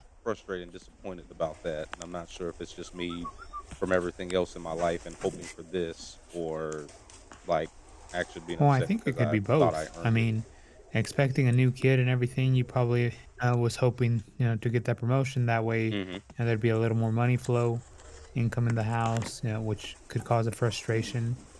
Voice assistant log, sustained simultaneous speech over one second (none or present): present